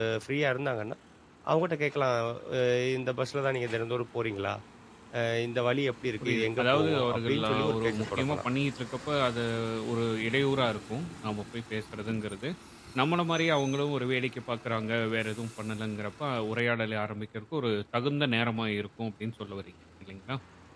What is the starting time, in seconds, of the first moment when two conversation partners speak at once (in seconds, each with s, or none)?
6.2 s